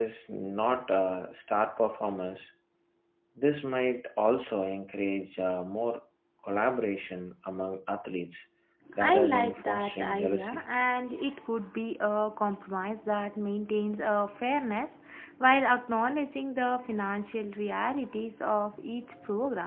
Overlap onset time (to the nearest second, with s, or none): 9 s